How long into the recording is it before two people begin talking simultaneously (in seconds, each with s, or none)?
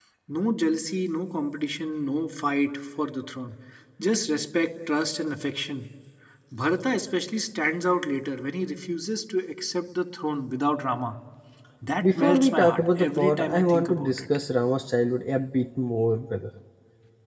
12.0 s